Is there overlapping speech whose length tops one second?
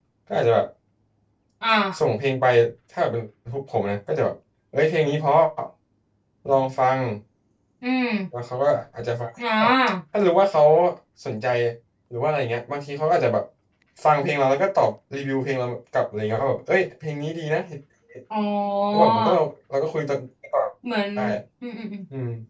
No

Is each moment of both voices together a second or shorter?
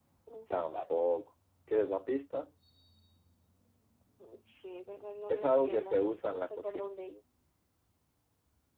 No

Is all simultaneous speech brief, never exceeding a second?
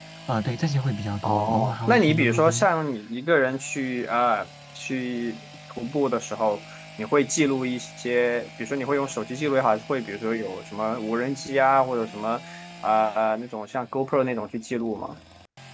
No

